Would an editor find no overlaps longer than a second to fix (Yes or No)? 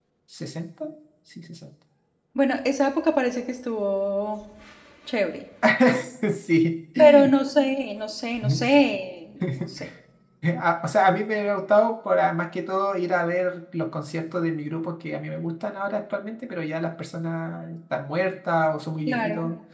Yes